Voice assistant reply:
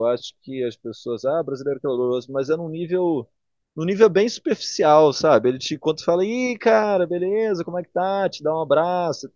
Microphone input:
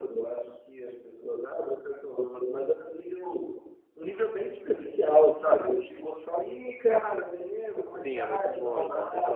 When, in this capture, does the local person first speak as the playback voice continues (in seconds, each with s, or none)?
7.9 s